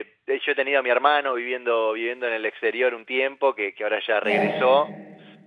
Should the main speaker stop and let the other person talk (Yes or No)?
No